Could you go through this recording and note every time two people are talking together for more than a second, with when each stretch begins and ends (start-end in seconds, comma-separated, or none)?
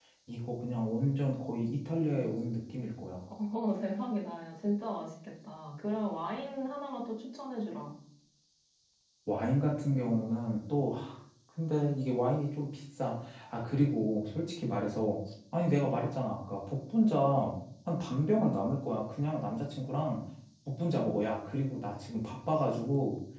none